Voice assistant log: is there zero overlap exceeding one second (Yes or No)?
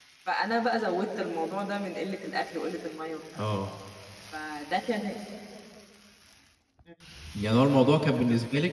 Yes